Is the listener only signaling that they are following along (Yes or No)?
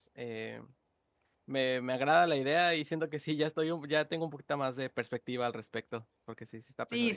No